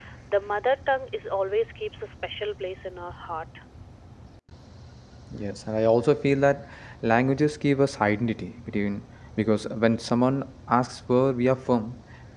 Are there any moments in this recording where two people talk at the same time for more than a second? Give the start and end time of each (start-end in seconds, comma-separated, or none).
none